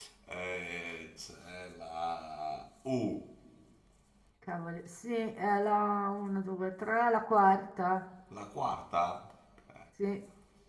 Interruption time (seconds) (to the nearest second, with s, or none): none